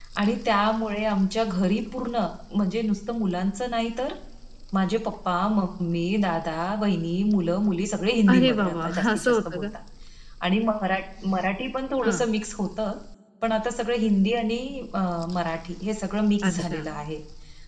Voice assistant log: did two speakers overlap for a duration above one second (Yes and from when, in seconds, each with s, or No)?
Yes, from 8.3 s